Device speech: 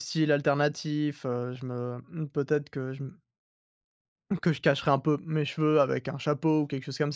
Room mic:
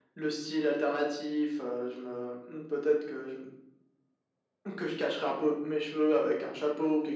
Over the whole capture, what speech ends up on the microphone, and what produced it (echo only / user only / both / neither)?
echo only